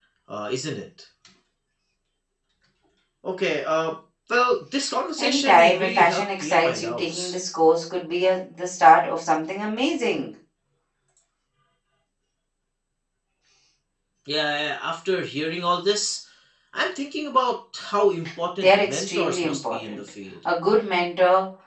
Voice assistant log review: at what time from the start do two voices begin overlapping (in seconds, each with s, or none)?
5.2 s